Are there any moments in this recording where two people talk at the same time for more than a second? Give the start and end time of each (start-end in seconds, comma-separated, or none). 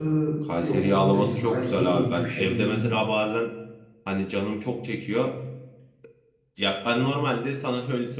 0.6-2.9